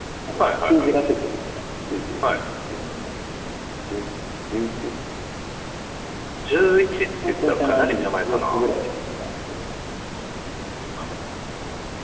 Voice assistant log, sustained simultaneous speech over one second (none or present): present